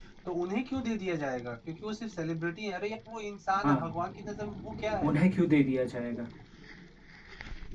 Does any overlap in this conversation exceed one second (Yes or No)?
No